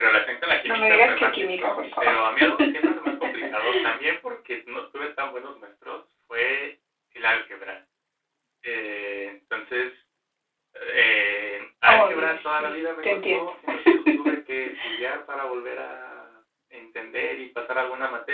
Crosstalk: present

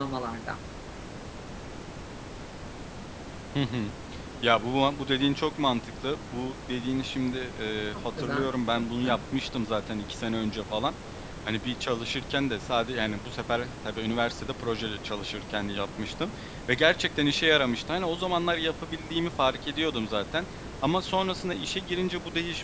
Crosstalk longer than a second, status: present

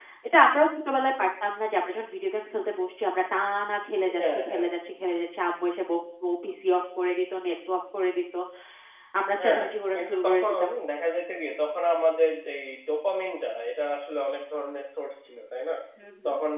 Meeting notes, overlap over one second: present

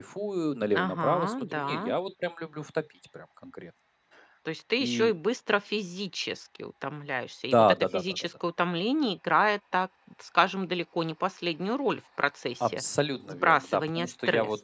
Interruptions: present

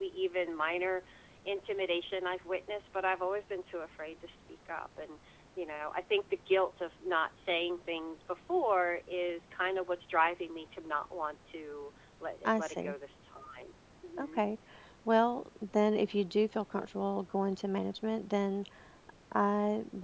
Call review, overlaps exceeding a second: none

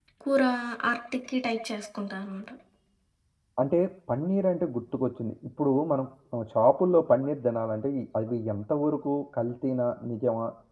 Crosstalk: none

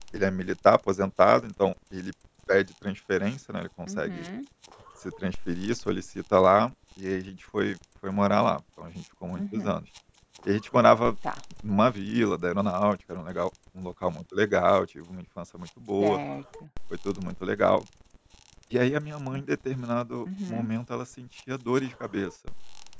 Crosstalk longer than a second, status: none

